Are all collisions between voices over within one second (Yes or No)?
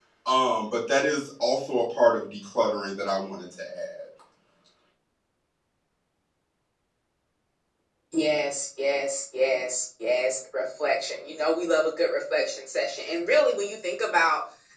Yes